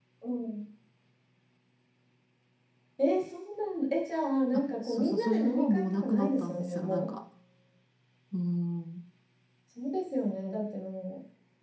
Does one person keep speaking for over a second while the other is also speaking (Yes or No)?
Yes